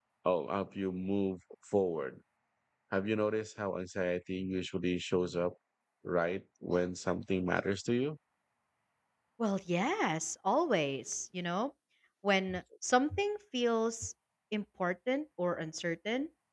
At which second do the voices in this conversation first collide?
none

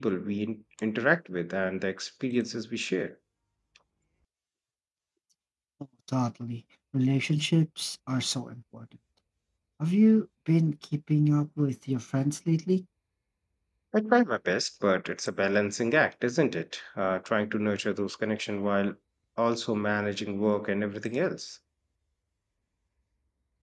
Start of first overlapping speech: none

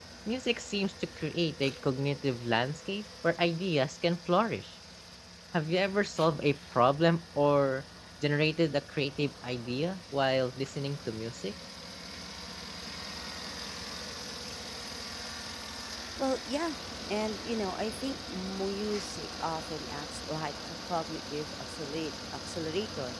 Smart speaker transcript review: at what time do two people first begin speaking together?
none

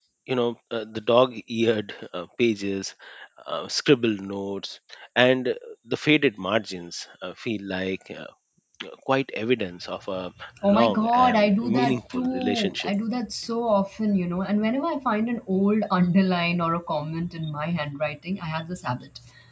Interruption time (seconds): 11 s

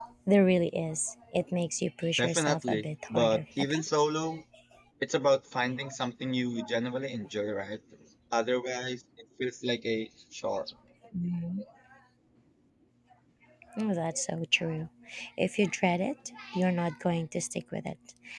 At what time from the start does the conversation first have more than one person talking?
2 s

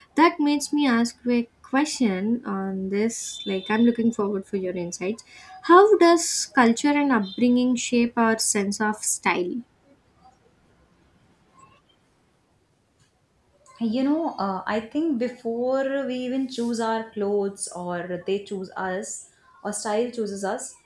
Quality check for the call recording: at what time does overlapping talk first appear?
none

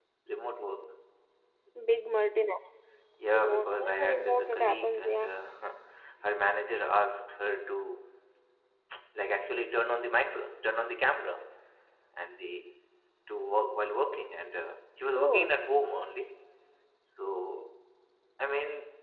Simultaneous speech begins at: 3 s

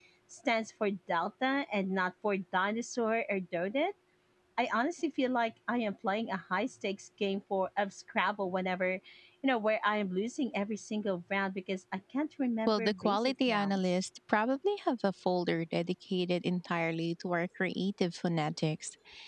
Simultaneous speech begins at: 13 s

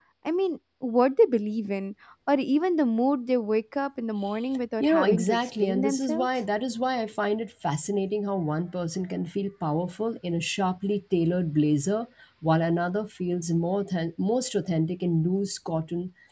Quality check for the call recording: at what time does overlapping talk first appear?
5 s

